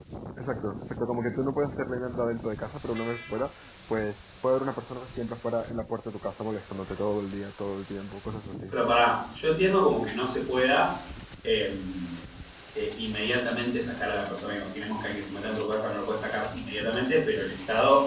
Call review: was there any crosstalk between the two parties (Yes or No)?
No